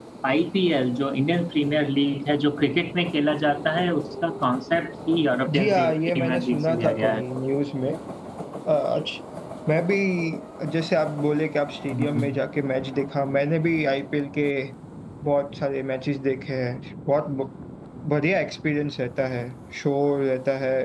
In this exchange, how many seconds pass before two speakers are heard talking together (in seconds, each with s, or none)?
5.5 s